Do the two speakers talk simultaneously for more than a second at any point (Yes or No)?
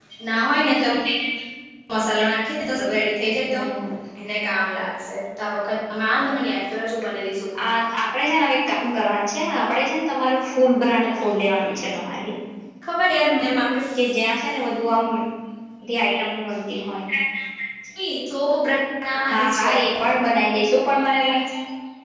No